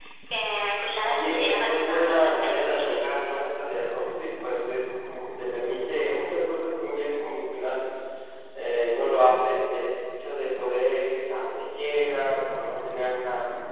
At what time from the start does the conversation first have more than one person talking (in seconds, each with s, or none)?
1.0 s